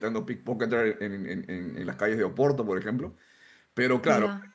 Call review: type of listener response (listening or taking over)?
listening